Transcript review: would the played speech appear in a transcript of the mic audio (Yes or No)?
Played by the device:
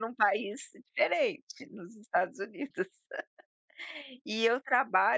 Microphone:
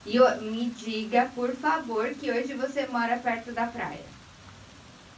No